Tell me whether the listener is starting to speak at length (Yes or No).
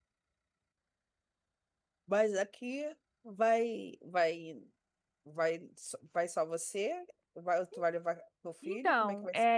Yes